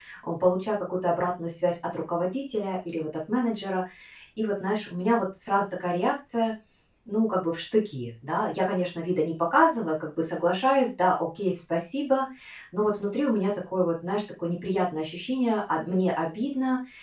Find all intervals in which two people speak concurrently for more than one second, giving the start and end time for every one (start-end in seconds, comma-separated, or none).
none